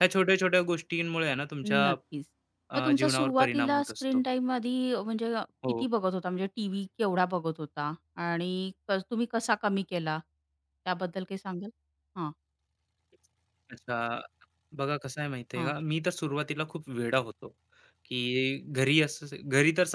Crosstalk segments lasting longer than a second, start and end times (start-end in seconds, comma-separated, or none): 2.8-4.2